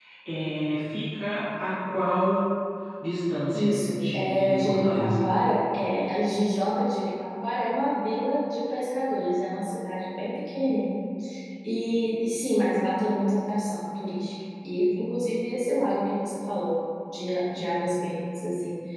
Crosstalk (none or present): present